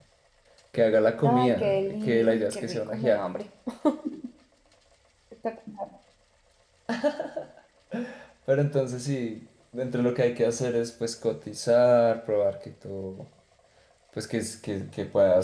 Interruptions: present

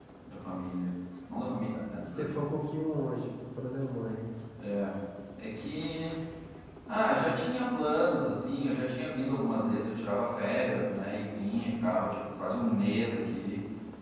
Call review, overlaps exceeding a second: none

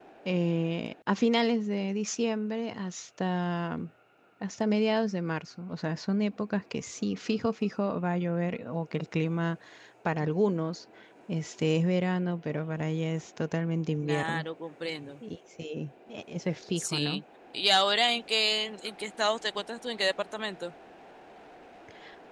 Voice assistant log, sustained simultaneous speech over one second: none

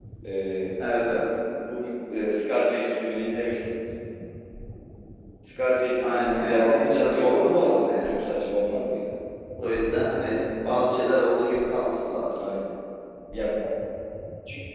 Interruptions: present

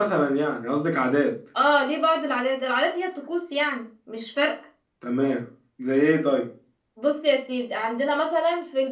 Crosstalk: none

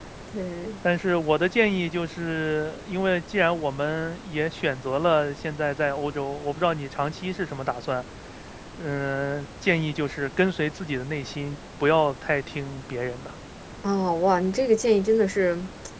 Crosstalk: none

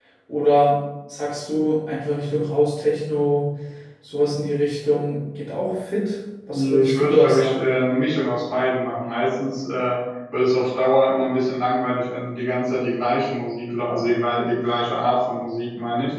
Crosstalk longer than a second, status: present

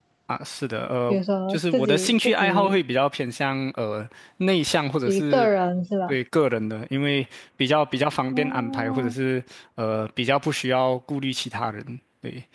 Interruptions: present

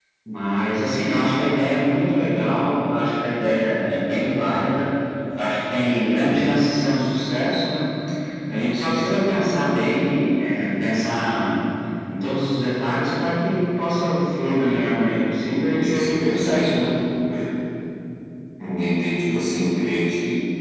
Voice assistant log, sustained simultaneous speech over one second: present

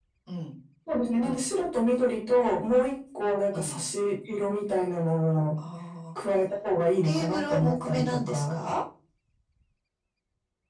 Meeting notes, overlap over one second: present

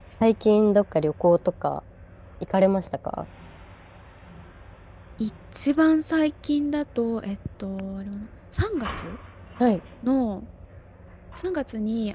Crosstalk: none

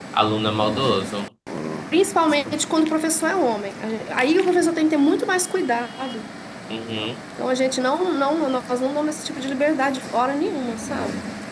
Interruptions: none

